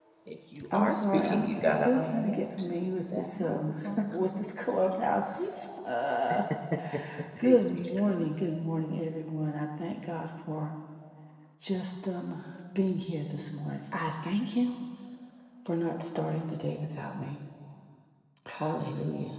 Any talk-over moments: Yes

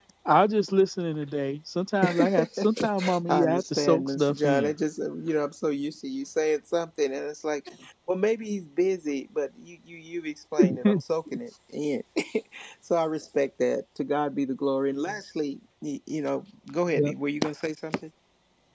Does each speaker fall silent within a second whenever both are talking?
No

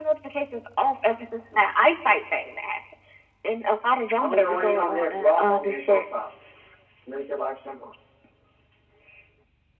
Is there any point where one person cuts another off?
Yes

